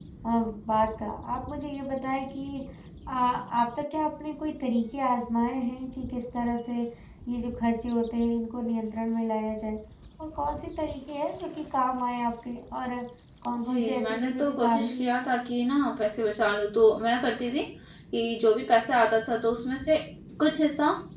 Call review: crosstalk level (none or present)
present